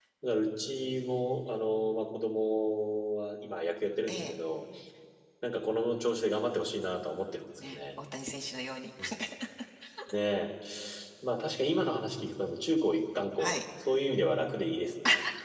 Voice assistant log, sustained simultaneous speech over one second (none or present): none